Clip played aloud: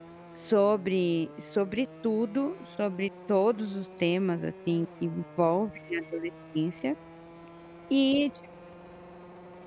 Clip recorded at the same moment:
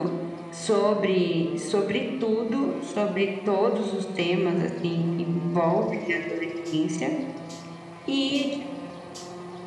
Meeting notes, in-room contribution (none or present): none